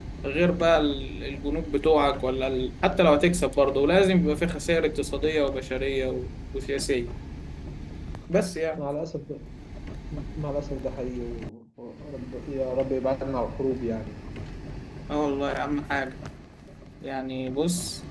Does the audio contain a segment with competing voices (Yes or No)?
No